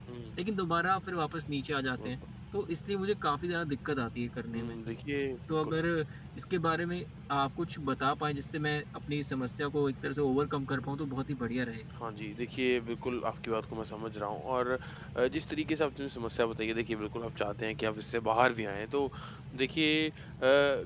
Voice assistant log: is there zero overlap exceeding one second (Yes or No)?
Yes